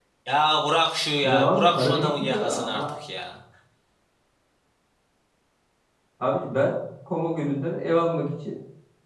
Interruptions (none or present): present